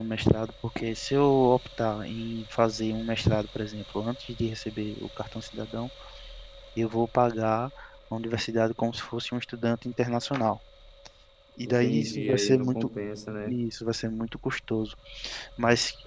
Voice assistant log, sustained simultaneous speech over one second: present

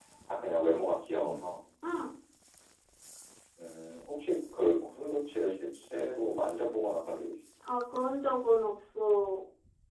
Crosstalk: none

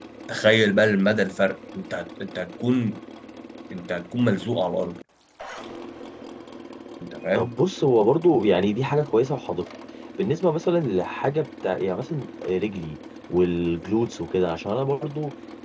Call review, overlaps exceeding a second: none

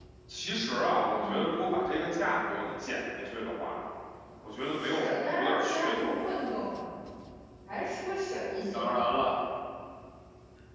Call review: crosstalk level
present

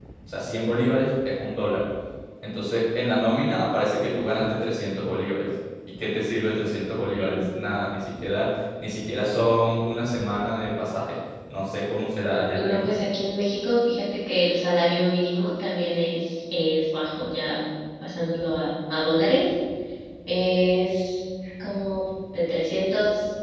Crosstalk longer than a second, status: none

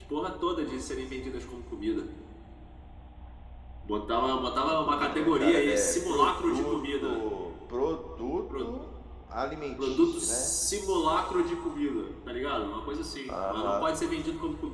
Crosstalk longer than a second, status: present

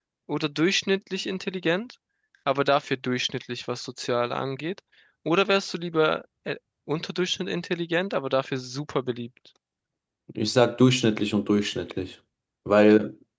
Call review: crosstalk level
none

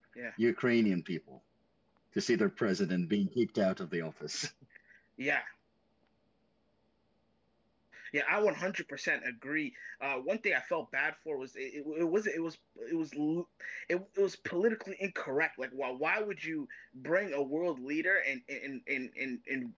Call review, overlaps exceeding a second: none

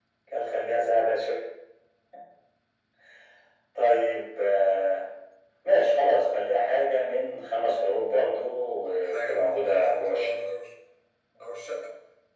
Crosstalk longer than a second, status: present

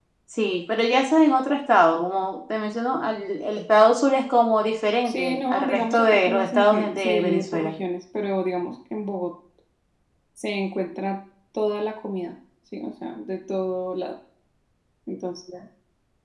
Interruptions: present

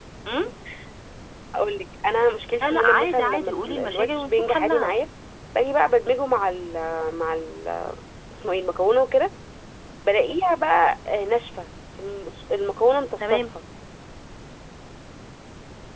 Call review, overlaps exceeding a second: present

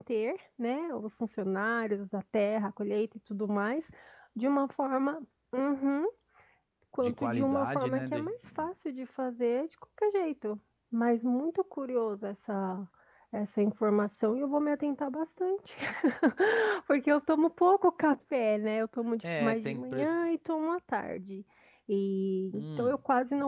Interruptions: present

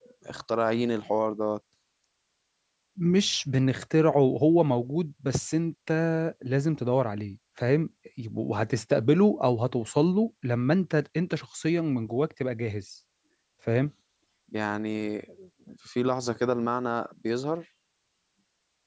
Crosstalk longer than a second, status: none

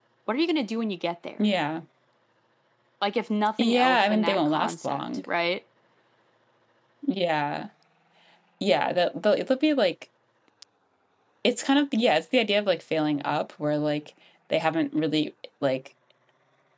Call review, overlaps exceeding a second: present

